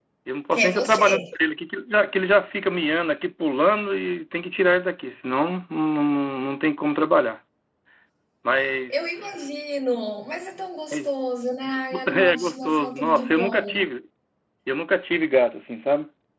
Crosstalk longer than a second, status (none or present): present